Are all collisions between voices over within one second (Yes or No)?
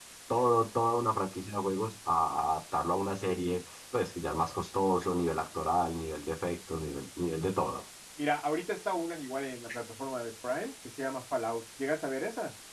Yes